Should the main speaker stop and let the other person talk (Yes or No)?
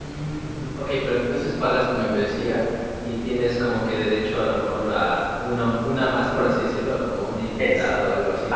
Yes